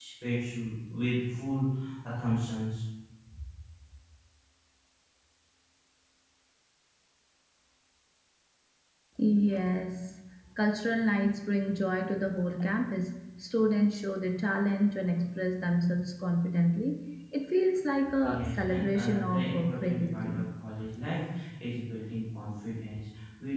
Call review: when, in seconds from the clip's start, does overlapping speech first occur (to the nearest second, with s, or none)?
18 s